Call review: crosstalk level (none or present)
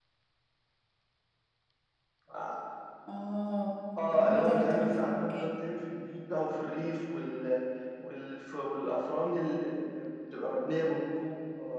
present